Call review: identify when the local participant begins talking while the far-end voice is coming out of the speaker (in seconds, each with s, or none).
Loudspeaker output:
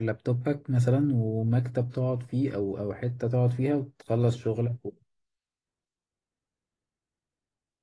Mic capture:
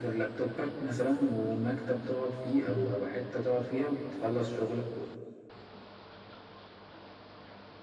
2.7 s